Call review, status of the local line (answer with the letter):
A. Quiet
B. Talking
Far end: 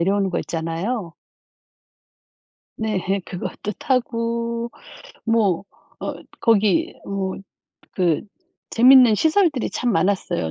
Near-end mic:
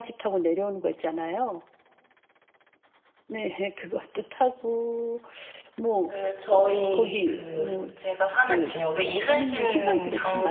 B